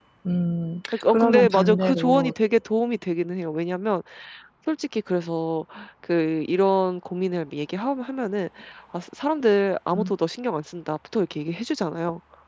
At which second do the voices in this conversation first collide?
0.9 s

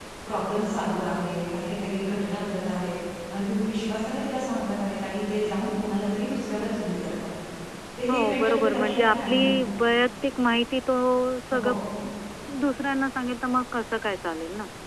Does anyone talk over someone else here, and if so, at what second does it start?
8.1 s

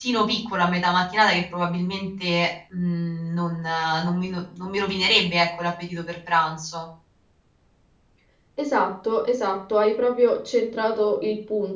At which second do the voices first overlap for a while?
none

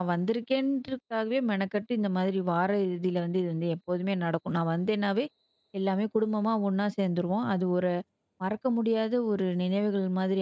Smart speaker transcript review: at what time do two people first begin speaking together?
none

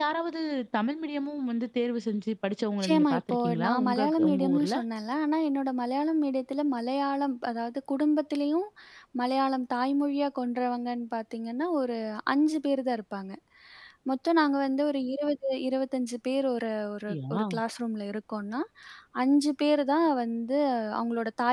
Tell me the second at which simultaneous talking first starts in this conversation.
2.8 s

